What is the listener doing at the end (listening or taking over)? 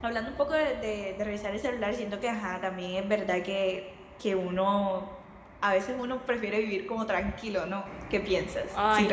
taking over